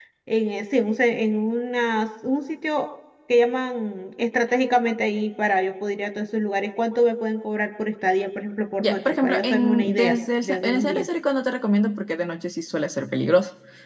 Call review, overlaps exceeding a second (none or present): present